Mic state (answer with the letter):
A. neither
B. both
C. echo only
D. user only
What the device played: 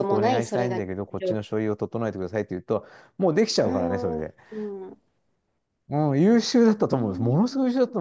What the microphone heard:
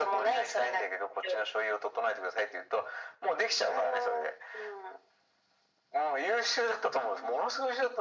C